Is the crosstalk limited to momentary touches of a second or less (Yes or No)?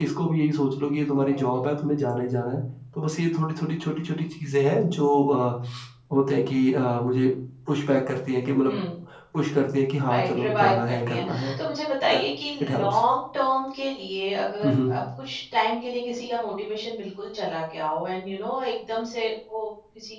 No